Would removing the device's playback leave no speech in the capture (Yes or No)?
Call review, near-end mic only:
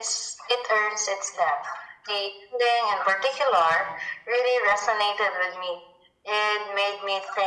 Yes